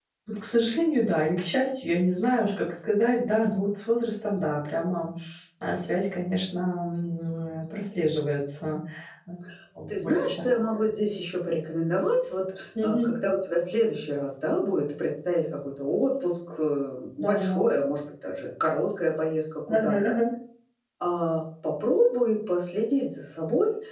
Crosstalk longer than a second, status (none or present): none